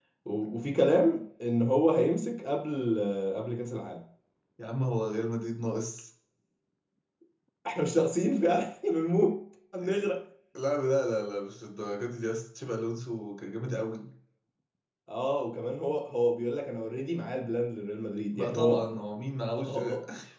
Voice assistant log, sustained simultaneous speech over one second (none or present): none